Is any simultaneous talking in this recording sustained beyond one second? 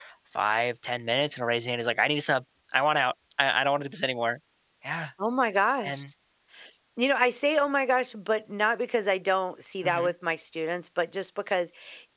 No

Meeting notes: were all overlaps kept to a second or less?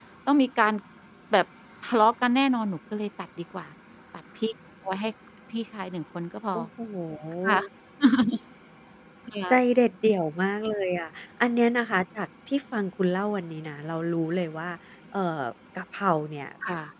Yes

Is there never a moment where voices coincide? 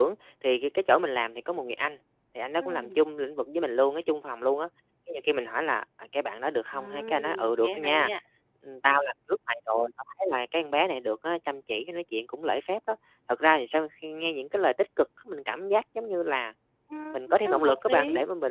No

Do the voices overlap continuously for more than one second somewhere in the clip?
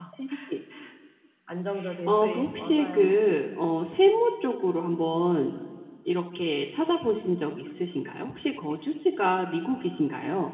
Yes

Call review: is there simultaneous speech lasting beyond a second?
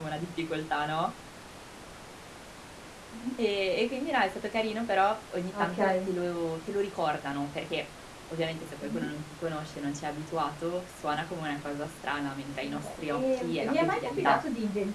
Yes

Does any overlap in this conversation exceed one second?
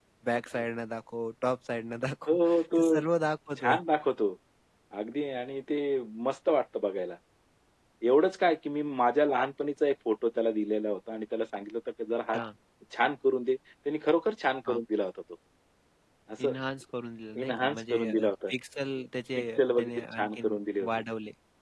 Yes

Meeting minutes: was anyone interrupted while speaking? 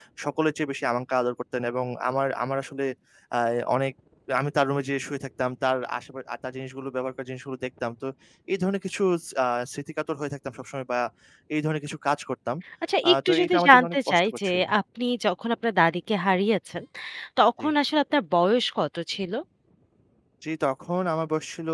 Yes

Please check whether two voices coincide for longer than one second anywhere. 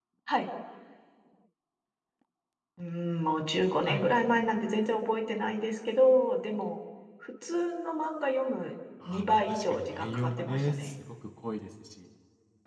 Yes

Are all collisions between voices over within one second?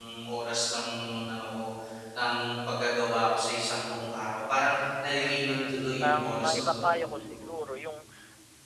No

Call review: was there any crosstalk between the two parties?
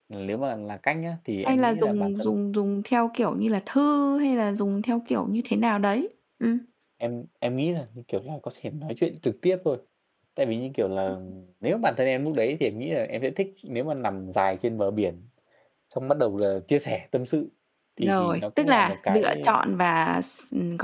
Yes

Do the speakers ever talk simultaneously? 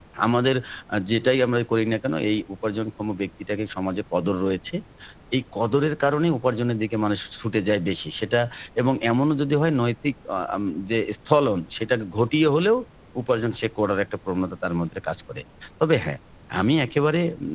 No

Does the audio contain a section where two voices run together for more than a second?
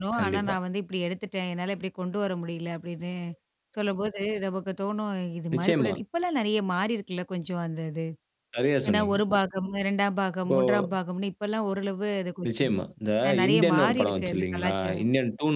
Yes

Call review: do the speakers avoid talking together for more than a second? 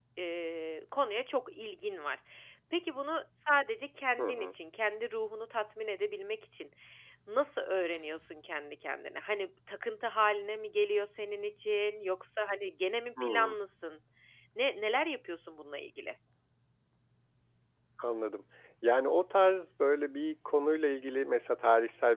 Yes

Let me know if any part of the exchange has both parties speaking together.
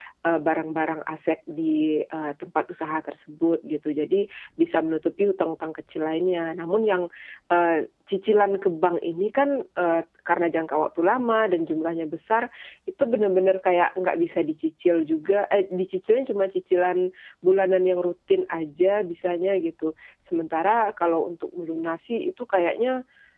No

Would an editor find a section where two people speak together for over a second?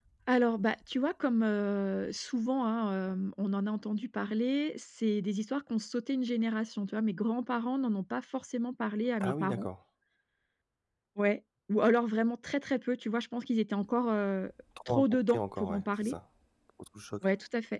Yes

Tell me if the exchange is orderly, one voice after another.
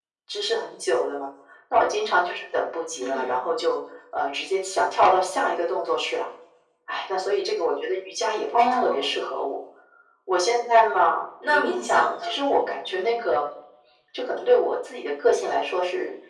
No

